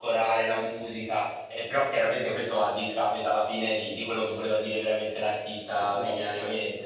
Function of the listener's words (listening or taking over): taking over